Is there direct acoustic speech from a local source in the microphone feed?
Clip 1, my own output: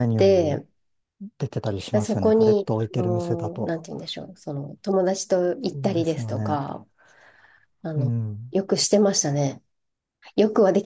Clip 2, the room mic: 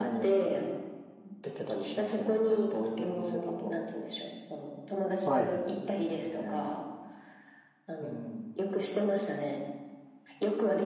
Yes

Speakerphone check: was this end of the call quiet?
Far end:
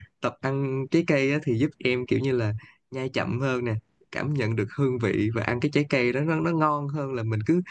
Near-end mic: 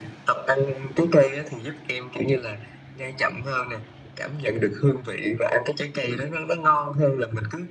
Yes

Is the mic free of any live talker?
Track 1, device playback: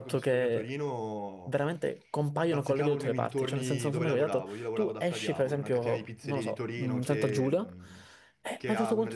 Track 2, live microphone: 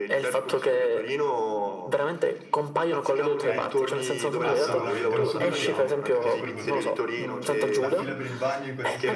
No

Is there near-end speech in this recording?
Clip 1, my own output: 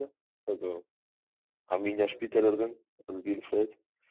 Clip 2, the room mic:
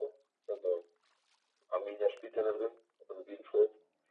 No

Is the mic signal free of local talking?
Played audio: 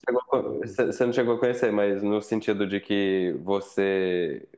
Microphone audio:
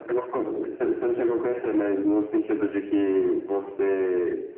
Yes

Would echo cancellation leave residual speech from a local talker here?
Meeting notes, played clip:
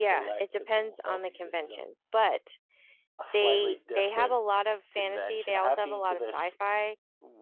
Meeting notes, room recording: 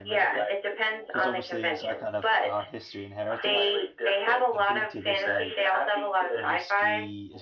Yes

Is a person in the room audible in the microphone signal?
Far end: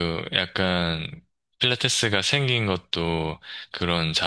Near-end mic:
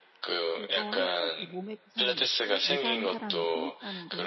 Yes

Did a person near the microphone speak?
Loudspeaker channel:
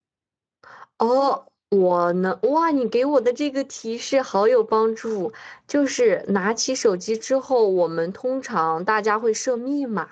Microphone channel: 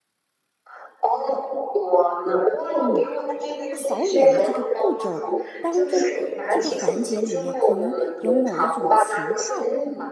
Yes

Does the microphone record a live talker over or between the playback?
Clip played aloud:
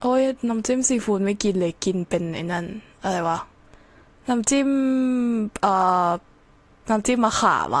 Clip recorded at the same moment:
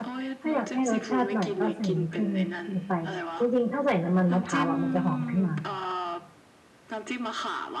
Yes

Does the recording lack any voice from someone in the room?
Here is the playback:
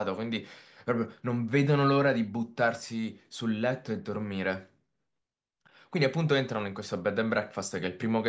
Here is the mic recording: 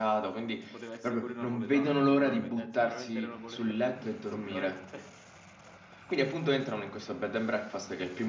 No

